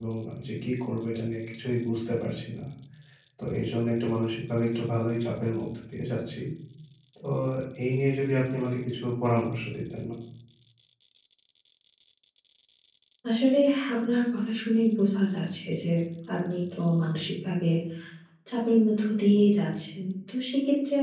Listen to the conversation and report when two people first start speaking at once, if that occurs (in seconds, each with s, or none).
none